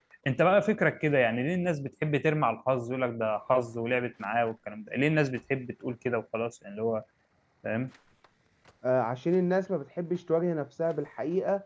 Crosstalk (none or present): none